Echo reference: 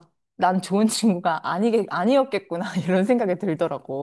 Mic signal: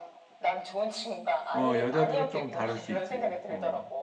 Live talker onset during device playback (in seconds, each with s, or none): 1.5 s